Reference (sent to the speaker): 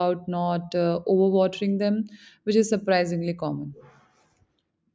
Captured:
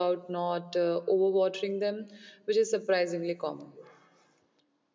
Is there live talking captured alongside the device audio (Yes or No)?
No